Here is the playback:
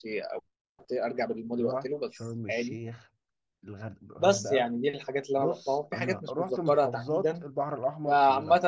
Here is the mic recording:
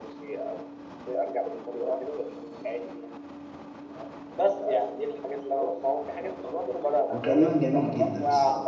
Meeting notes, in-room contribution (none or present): present